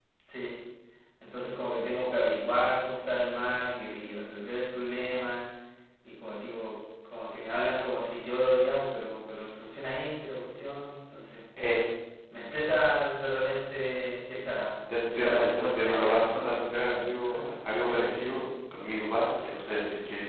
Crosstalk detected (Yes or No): Yes